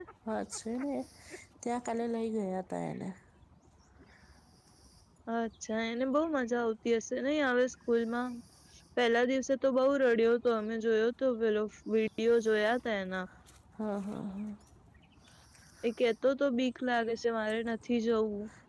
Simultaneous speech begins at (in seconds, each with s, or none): none